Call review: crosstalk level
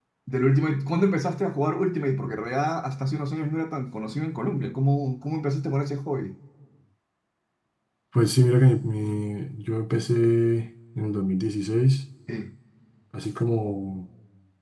none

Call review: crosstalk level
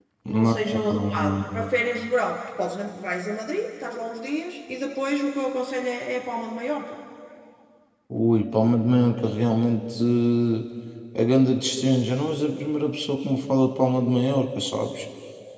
present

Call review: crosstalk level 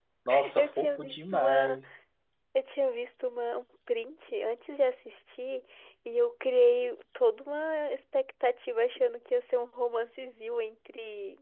present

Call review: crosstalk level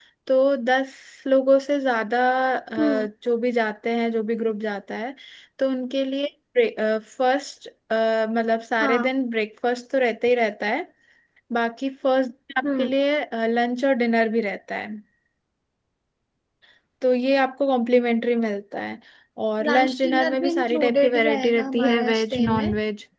present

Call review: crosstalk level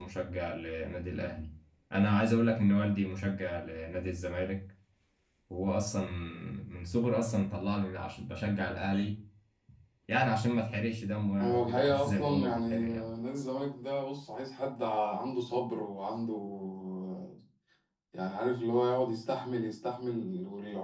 present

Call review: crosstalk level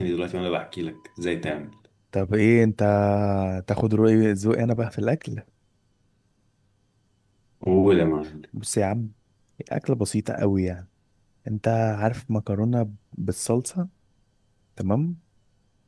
none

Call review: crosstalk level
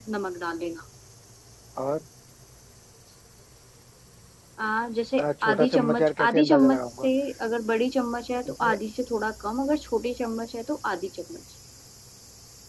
present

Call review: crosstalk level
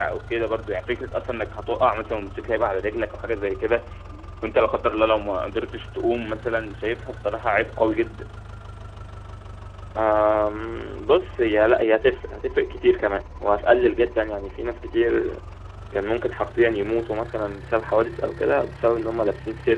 none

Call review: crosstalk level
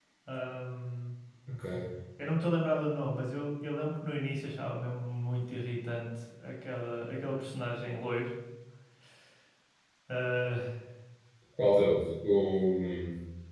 none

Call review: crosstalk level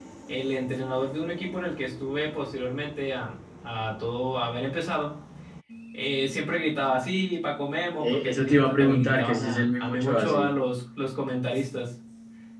present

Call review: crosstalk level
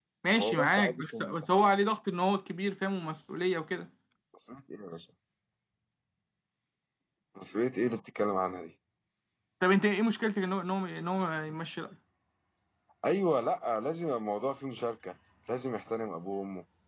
present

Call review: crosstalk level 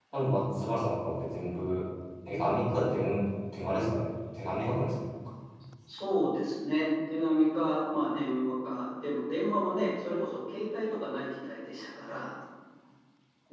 none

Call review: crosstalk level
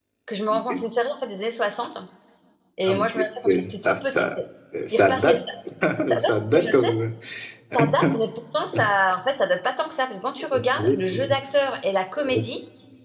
present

